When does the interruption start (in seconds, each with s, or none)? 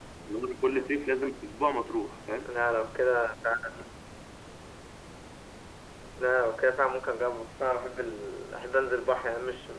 none